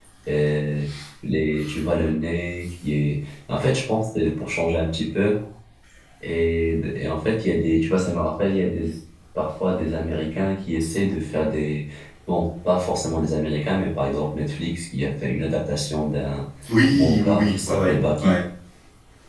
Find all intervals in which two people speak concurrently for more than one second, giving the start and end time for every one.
16.9-18.4

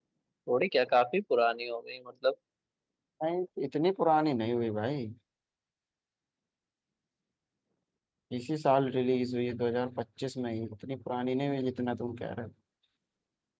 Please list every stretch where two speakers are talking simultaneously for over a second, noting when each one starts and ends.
none

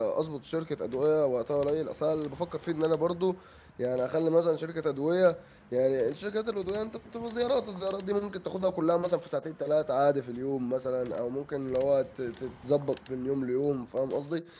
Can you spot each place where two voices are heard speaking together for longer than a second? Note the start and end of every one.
none

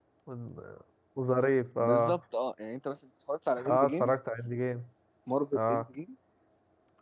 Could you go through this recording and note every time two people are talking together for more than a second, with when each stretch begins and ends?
none

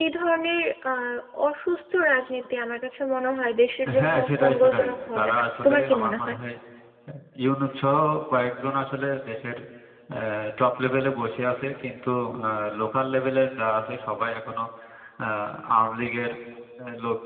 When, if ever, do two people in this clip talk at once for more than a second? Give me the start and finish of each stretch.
4.0-6.4

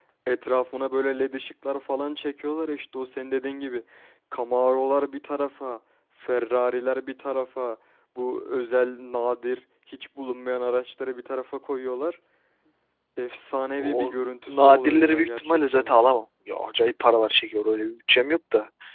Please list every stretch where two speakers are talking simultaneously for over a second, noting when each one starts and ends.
13.8-15.9

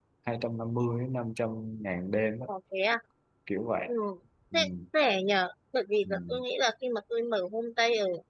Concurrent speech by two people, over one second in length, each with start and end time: none

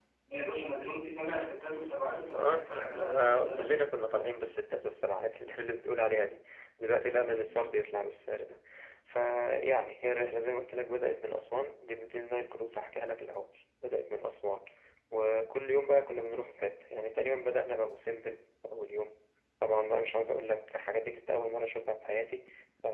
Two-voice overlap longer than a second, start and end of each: 2.3-3.9

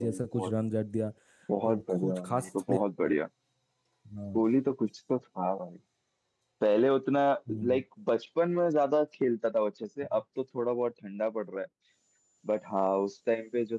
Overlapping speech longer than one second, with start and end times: 1.7-3.1

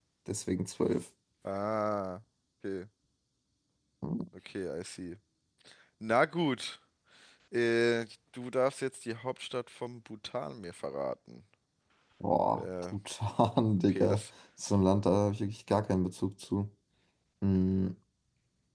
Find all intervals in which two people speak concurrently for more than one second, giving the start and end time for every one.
none

